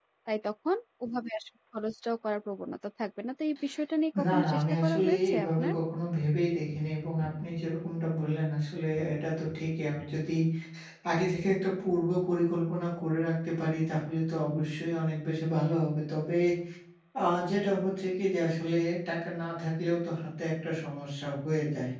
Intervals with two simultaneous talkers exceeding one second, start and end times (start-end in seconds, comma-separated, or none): 4.2-5.7